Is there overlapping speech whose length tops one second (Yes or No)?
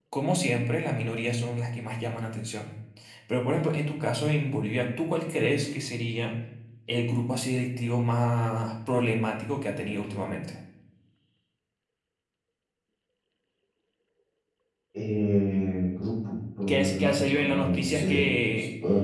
Yes